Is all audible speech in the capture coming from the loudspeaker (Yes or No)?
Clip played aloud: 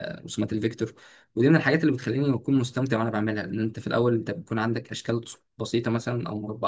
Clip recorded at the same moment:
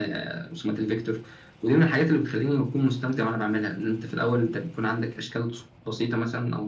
Yes